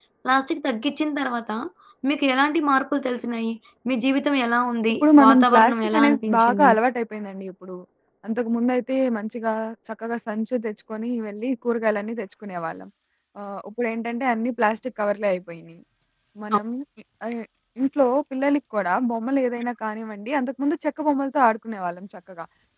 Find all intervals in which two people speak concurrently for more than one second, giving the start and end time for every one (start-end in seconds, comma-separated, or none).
5.0-6.7